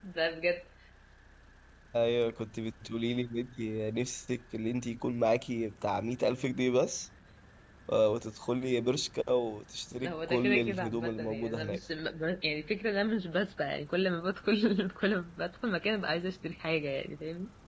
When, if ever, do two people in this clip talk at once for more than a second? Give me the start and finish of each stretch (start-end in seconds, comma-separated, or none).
10.0-11.8